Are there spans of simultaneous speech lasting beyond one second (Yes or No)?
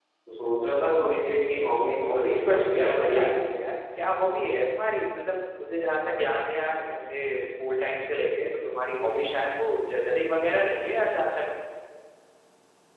Yes